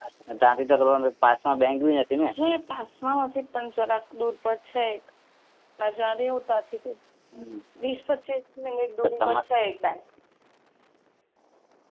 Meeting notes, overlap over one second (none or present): none